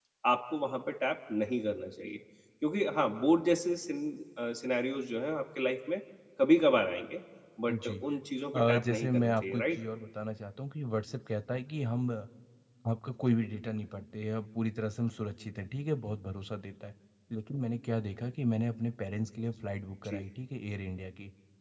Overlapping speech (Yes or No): Yes